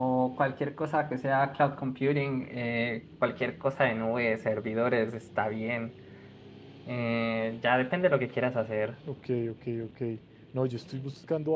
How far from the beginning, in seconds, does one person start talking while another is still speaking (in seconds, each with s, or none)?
none